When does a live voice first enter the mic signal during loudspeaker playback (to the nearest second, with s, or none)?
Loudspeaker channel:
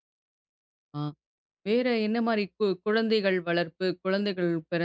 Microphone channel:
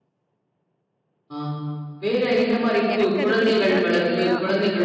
3 s